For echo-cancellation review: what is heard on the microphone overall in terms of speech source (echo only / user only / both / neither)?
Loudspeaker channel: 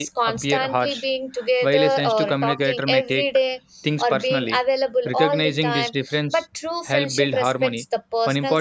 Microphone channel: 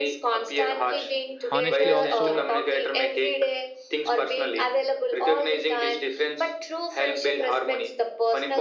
both